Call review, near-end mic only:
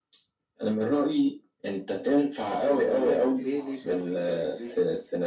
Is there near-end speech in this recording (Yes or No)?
Yes